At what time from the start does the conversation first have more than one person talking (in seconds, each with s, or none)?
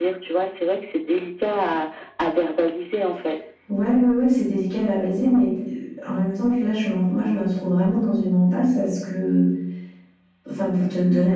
none